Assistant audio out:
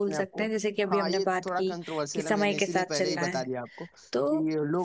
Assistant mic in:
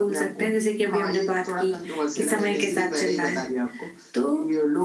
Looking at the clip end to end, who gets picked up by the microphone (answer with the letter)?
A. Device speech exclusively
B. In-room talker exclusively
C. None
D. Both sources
A